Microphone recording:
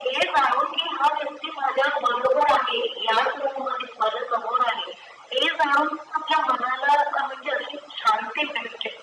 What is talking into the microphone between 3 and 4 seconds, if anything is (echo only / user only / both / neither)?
echo only